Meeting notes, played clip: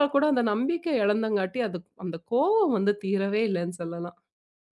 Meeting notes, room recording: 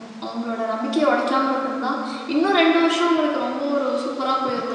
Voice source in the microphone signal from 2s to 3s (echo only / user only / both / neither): user only